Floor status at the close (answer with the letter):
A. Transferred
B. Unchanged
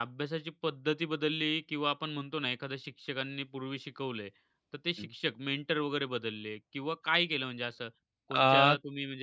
B